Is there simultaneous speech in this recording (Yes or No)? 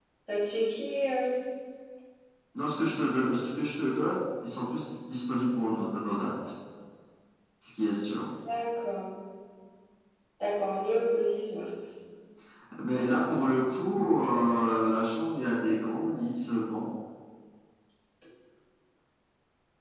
No